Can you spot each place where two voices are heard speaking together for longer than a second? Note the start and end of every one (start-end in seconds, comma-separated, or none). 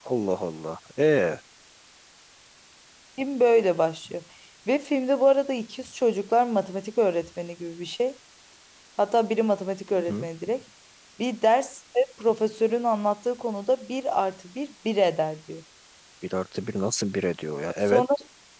none